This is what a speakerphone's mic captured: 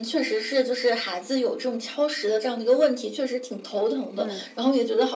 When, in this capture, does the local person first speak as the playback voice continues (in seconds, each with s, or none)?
4.2 s